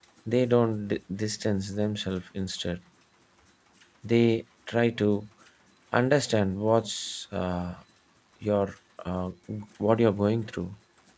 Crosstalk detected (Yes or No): No